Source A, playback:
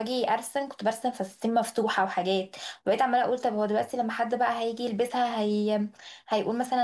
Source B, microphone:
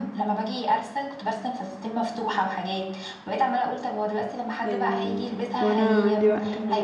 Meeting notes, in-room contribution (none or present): present